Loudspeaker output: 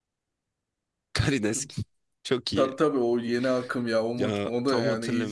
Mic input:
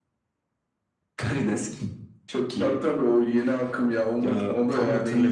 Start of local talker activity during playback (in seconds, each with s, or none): none